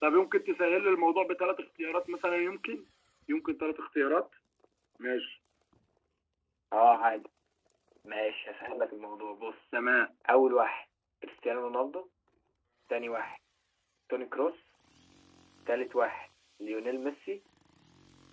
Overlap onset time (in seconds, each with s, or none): none